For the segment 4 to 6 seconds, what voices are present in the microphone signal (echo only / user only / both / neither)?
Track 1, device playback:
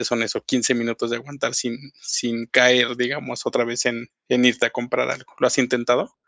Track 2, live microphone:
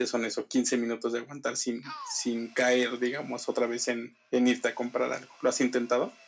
echo only